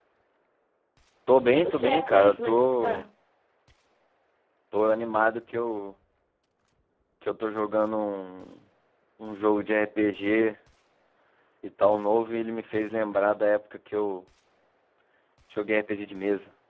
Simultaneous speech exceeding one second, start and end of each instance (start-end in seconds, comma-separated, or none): 1.5-3.1